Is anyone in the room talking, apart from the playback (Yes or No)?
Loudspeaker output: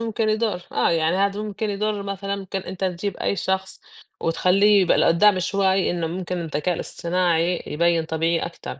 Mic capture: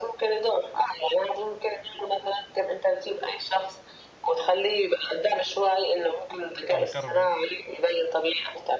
Yes